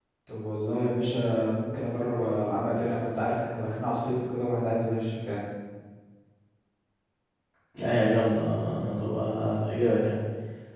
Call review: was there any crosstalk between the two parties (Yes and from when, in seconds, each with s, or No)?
No